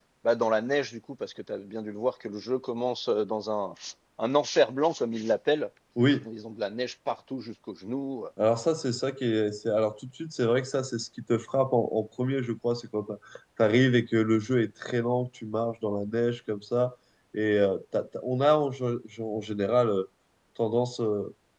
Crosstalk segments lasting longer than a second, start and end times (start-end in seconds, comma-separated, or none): none